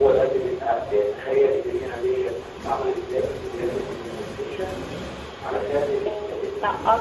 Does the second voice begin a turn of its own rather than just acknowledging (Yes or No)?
Yes